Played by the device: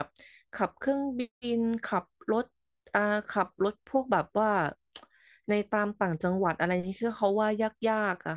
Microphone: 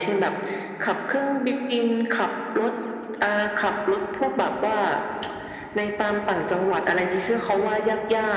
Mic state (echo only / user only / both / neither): echo only